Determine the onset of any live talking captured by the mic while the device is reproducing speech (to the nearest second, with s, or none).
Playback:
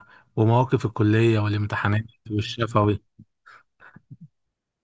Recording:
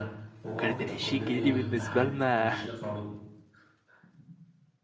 1 s